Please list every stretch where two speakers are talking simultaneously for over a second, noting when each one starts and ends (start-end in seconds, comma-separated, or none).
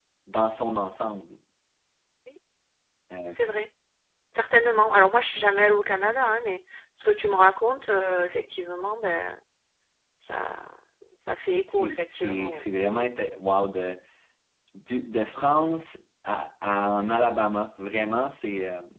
11.7-13.1